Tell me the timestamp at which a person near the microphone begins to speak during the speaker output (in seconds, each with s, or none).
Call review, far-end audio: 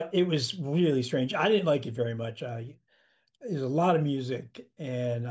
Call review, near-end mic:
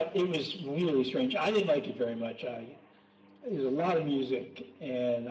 none